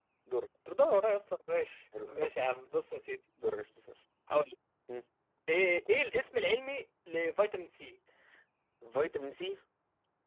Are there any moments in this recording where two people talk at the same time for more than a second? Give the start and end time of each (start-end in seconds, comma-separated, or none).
none